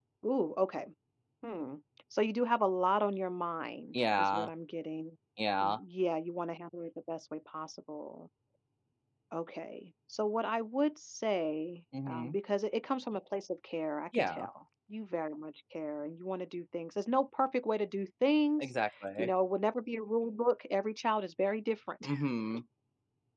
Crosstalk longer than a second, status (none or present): none